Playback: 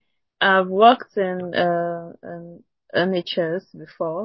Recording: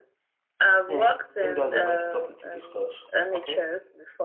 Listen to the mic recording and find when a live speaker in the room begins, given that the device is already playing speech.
0.8 s

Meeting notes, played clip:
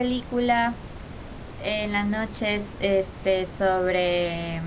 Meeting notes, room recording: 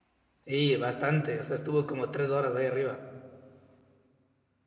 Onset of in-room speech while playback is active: 0.4 s

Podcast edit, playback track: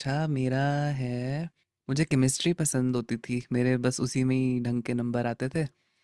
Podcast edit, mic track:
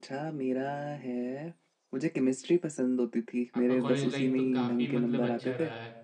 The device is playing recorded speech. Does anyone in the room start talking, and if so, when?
3.5 s

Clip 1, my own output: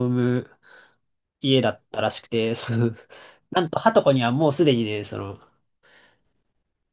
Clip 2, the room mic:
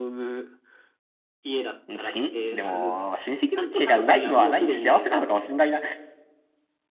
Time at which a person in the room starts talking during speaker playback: 1.9 s

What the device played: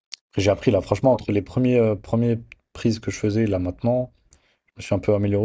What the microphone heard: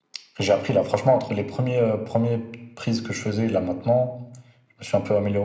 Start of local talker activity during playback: none

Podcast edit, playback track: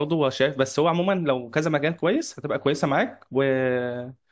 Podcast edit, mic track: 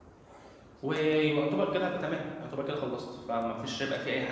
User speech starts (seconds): 0.8 s

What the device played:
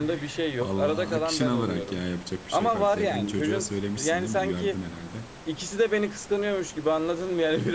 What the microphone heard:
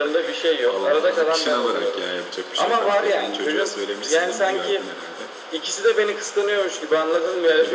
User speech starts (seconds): none

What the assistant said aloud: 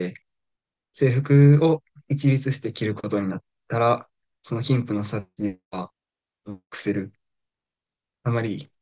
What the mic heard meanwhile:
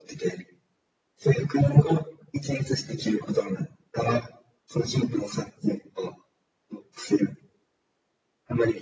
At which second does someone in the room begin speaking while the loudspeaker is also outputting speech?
none

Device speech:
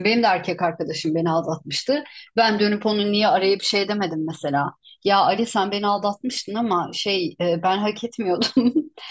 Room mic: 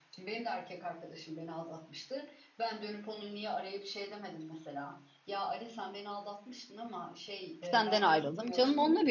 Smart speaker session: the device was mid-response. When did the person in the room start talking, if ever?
7.7 s

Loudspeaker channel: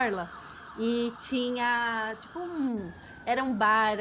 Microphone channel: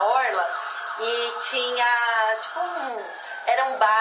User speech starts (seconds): none

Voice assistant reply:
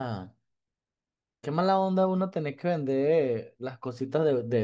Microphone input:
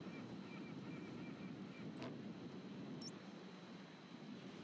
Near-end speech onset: none

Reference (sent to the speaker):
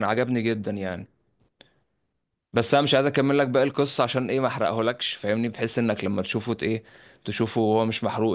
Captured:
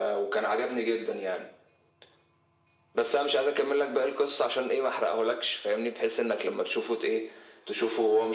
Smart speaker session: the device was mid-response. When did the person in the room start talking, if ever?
none

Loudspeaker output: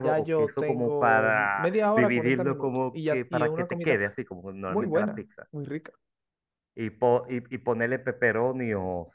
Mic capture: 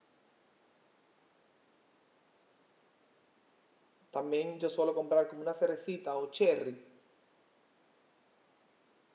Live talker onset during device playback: 4.1 s

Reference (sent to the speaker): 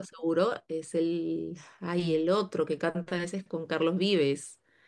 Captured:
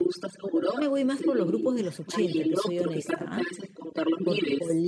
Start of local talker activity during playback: 0.4 s

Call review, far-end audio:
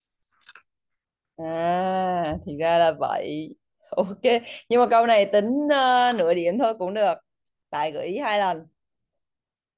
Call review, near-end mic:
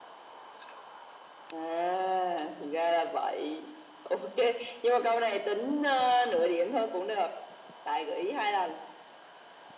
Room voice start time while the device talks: none

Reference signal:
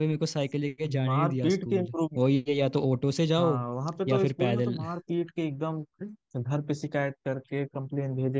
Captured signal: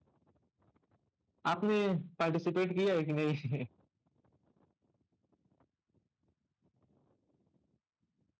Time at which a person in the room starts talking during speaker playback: 1.5 s

